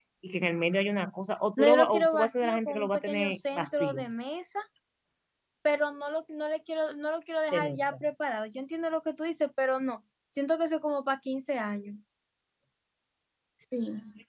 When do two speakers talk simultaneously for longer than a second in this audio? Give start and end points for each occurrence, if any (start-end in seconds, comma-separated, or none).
1.6-4.0